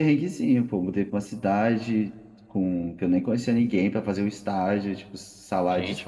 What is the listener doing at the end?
taking over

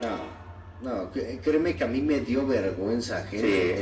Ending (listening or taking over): listening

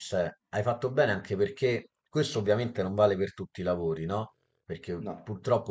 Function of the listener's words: listening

